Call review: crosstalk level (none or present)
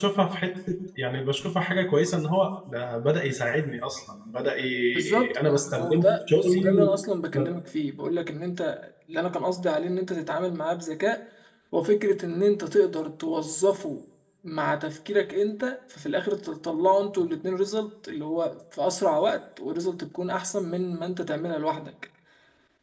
present